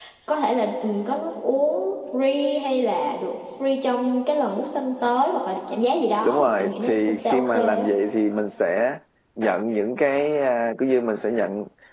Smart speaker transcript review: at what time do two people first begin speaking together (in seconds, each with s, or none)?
6.2 s